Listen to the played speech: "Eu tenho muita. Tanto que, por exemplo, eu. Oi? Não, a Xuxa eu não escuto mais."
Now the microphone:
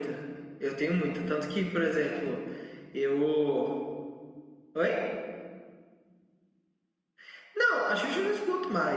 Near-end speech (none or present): none